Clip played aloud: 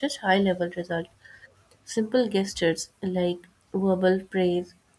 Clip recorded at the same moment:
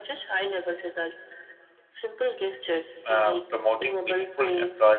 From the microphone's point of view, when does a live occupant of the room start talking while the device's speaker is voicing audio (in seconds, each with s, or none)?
3.0 s